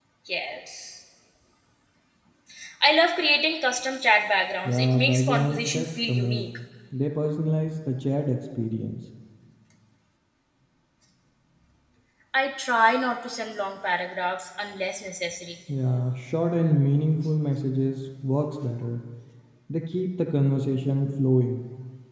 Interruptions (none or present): present